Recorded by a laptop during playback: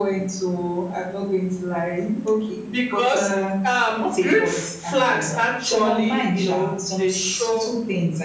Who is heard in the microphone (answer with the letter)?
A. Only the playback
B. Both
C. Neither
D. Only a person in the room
A